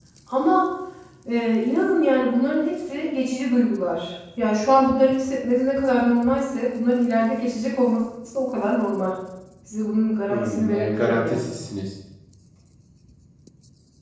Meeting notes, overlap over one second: present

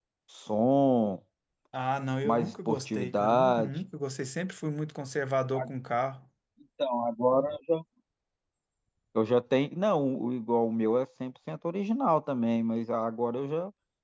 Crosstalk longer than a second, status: present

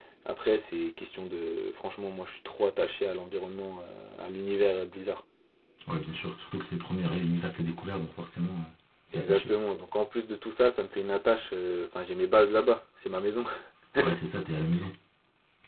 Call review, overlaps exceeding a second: none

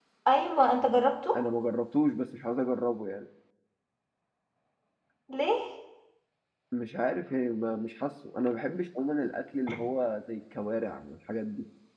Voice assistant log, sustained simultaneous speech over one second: none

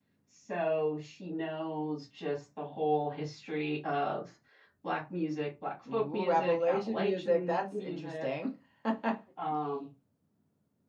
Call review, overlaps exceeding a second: present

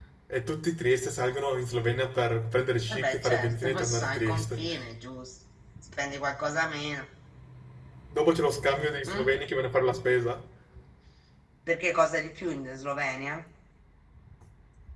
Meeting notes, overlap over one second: present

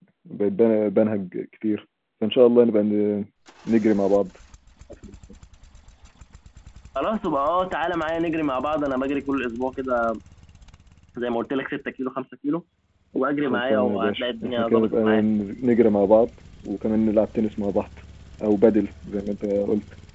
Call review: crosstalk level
present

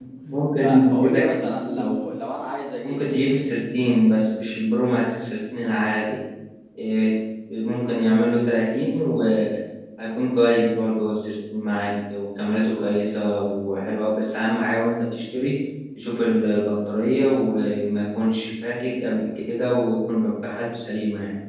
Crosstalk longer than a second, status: present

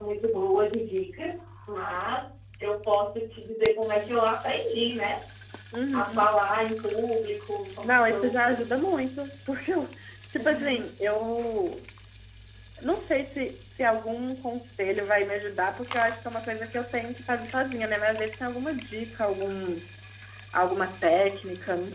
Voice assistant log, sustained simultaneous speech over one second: none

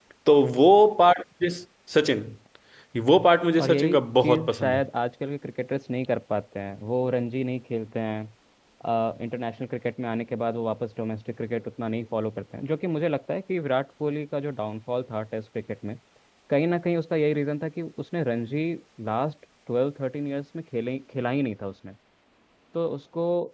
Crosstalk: present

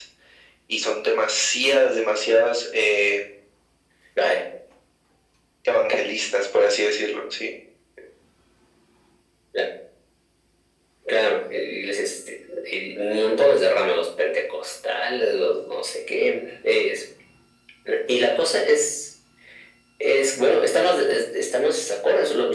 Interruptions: none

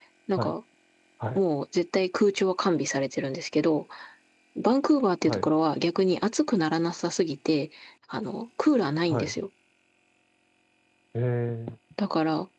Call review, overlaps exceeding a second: none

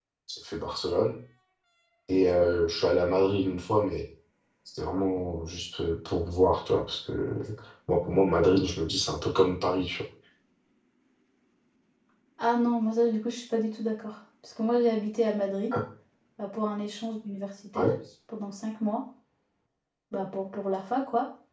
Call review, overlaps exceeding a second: none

